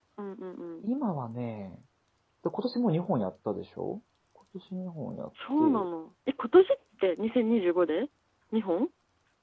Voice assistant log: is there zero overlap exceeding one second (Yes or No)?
Yes